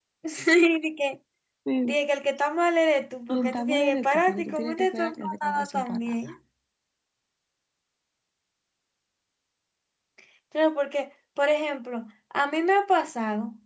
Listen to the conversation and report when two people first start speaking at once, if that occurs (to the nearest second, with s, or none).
3 s